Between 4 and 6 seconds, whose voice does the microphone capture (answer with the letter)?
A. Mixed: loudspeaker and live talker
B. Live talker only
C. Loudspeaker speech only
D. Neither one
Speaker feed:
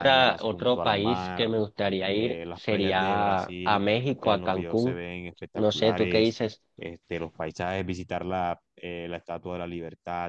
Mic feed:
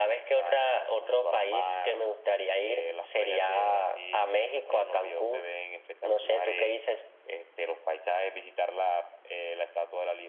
C